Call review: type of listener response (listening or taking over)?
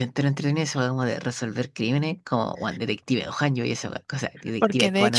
taking over